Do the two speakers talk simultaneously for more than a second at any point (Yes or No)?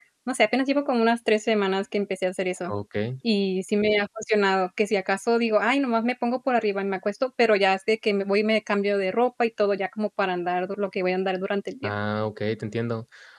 No